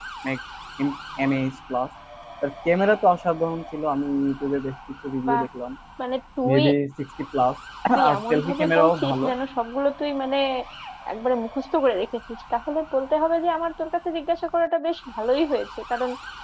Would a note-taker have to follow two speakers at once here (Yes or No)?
Yes